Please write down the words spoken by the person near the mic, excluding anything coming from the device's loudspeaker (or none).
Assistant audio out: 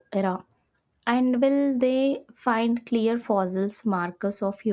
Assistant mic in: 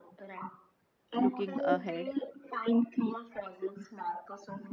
Looking ahead,